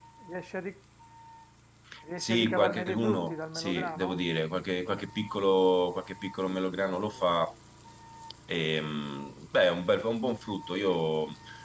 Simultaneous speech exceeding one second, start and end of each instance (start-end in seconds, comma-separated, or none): 2.2-4.2